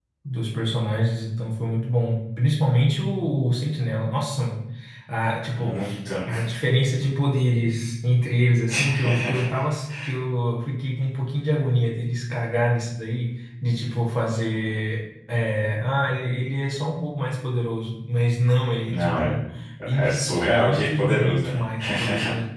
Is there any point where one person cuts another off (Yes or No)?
Yes